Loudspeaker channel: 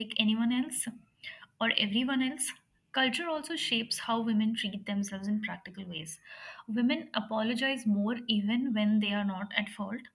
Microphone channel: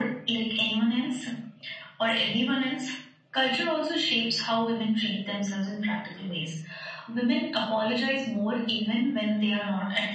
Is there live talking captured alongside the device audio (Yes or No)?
No